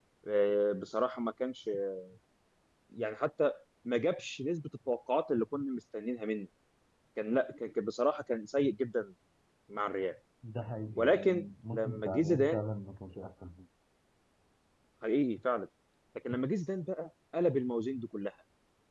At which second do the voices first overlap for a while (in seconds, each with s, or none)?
11.0 s